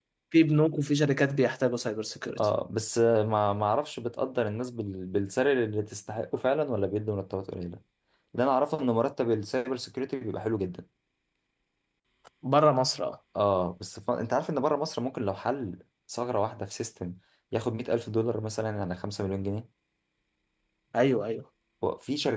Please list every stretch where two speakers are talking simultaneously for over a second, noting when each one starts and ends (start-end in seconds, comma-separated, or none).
none